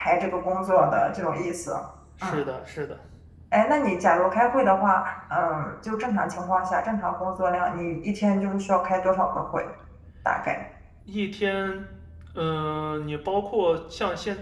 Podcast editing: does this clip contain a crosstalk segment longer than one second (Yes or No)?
No